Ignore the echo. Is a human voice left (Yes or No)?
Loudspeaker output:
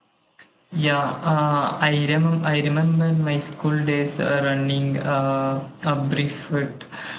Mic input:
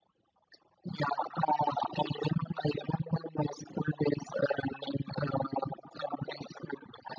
No